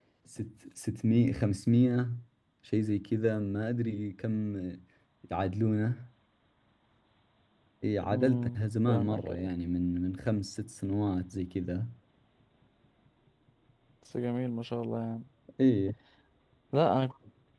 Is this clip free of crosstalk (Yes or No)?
No